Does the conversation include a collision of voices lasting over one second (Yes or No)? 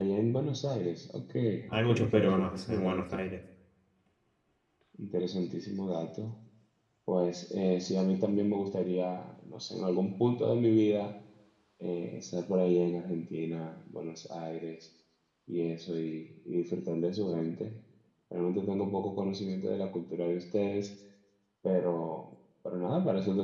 Yes